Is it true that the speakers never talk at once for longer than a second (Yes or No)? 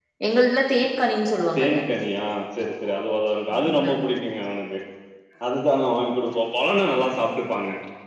Yes